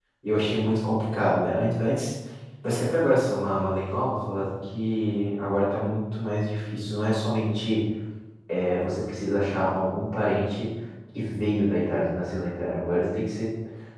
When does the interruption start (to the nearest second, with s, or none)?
none